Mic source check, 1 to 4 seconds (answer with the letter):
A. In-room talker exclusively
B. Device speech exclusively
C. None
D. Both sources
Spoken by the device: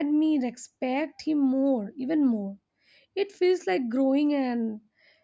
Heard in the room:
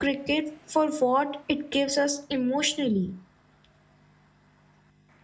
A